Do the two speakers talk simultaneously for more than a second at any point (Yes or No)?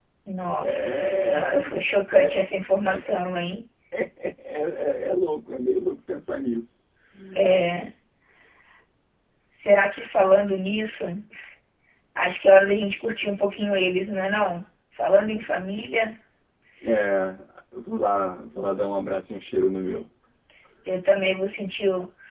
Yes